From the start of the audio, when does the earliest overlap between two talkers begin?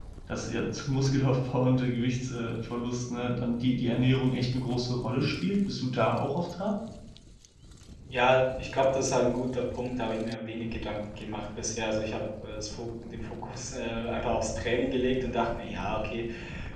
none

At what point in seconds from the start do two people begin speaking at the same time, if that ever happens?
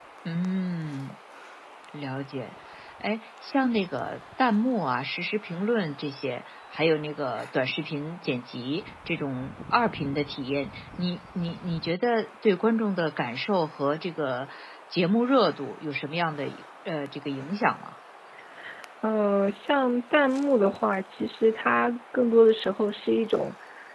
none

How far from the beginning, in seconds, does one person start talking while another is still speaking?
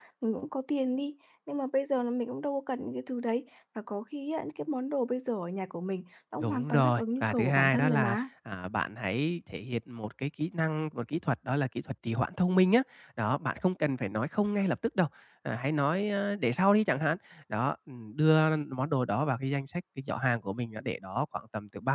6.4 s

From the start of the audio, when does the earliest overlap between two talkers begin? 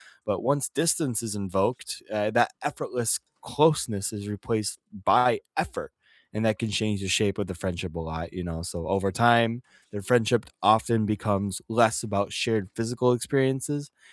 none

